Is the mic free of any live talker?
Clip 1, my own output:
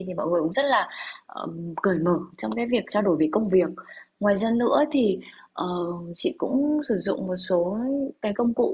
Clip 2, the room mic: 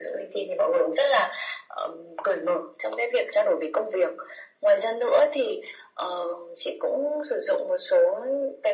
Yes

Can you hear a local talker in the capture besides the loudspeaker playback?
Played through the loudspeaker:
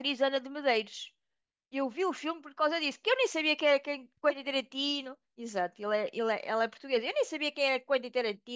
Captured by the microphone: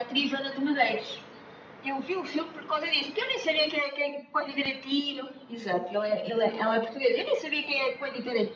No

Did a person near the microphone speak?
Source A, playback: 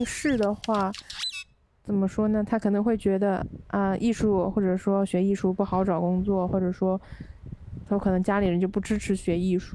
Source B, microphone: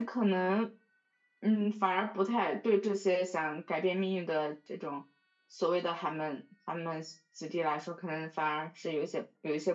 Yes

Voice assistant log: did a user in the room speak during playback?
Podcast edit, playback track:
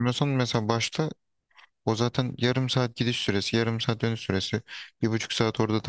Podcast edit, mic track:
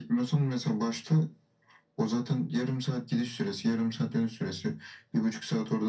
No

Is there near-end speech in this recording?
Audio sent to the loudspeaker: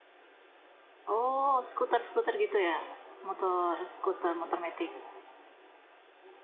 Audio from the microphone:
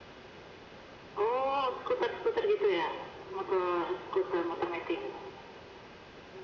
No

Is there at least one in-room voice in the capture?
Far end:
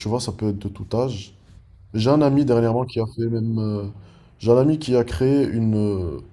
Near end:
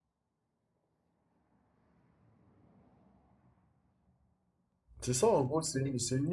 Yes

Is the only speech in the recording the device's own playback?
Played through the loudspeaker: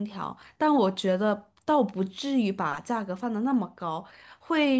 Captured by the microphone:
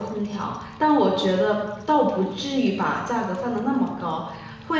Yes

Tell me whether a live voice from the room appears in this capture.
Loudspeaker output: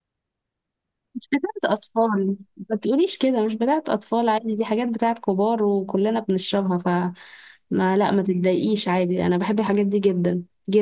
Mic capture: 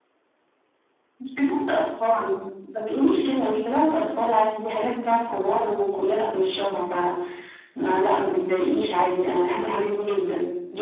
No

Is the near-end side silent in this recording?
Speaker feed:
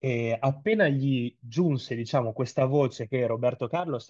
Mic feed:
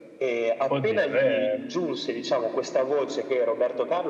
No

